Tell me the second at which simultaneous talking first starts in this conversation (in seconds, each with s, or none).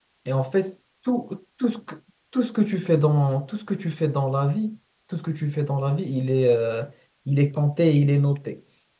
none